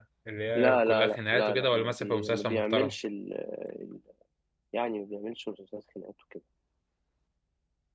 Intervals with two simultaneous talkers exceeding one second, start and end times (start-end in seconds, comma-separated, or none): 0.6-2.9